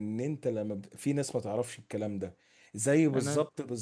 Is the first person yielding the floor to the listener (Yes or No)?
No